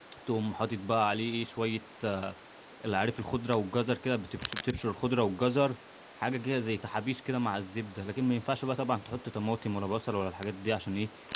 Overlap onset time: none

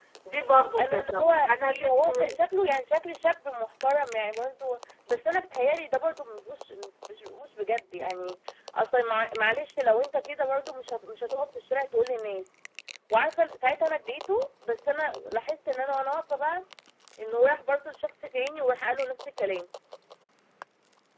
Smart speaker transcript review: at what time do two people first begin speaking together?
0.8 s

